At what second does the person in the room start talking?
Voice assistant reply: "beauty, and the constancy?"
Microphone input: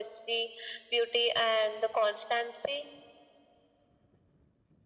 none

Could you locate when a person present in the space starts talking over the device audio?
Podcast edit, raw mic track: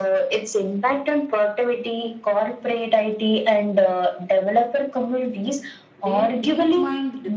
6 s

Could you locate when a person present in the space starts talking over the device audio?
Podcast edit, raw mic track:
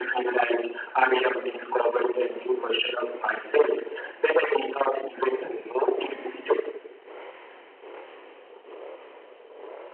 none

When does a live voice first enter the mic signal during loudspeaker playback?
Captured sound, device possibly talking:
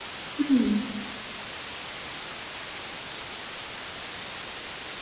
0 s

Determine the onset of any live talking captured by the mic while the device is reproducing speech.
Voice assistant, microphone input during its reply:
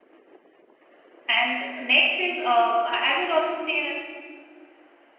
1 s

